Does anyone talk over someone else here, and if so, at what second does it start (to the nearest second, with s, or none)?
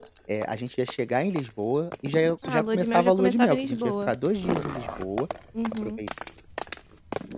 2 s